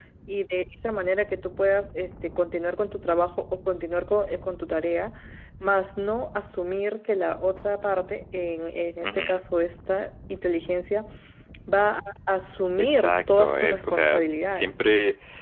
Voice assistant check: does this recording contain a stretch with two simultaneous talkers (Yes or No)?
Yes